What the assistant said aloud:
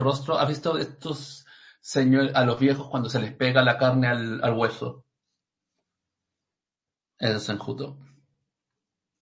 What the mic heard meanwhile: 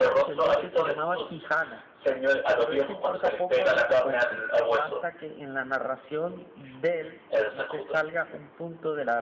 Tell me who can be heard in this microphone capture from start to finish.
both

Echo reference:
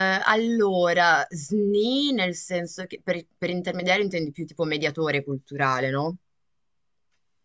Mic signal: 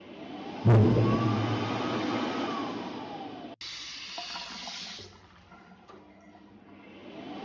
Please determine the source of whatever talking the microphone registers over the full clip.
user only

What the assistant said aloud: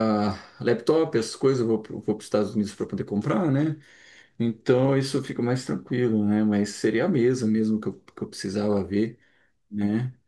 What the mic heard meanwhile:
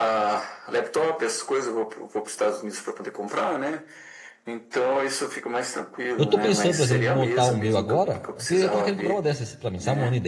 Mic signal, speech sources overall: both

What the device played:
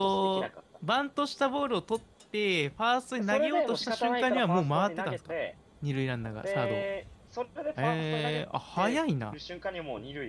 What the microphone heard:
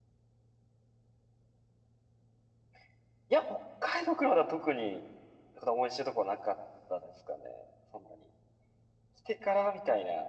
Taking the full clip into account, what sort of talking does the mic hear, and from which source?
user only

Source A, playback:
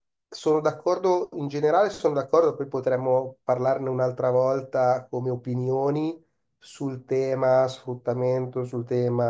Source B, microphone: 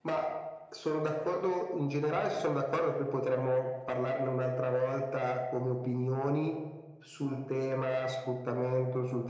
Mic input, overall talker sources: echo only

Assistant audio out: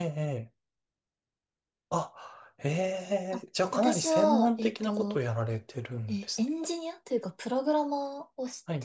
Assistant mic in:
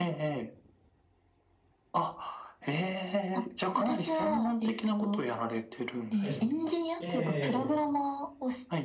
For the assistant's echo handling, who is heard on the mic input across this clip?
both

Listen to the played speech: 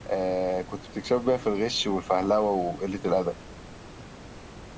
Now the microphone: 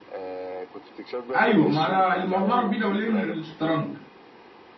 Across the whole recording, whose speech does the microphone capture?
both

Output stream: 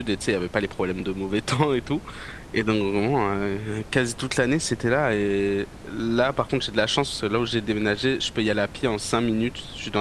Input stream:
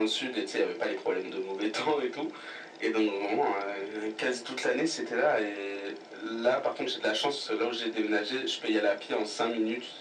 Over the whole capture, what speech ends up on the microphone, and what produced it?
echo only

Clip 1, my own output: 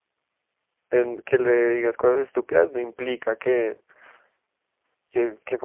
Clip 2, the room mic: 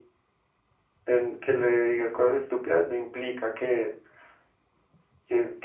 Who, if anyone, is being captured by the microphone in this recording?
echo only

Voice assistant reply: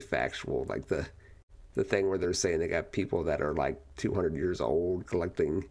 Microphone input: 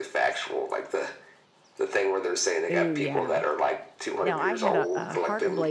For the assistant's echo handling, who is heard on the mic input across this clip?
both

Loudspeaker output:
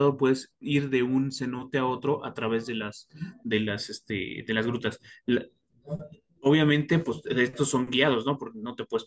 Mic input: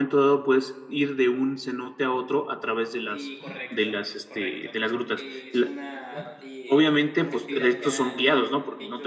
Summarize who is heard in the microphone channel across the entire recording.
both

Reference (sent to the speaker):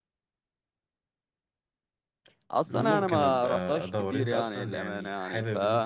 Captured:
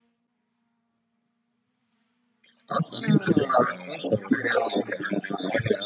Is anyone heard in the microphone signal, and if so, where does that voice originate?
echo only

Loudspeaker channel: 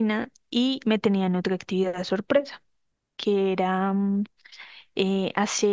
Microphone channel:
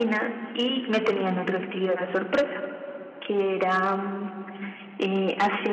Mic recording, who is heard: echo only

